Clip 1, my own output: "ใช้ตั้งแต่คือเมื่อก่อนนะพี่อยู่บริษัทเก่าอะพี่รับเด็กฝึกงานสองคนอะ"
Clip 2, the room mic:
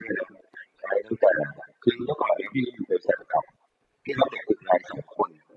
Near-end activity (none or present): none